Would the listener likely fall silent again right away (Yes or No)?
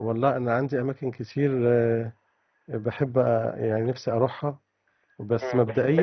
No